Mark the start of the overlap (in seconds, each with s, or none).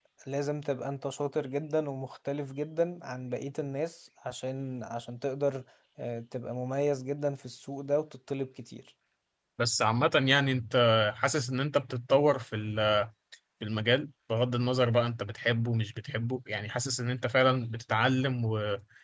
none